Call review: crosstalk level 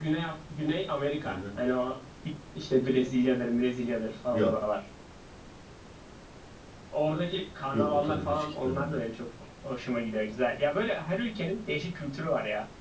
present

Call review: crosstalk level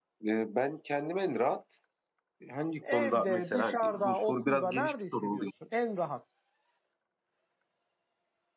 present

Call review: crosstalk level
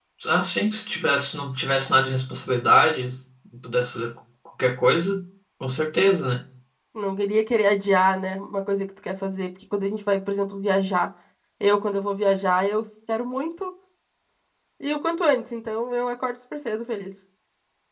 none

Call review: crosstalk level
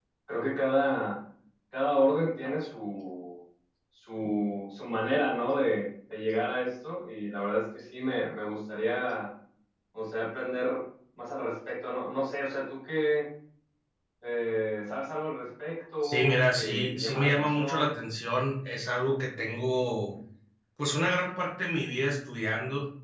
present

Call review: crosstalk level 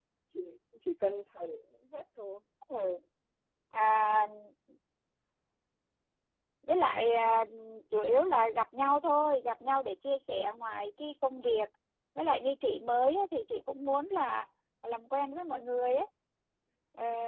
none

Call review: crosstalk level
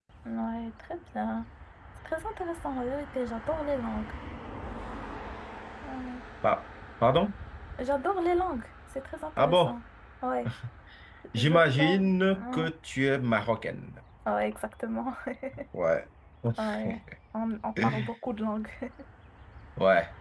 present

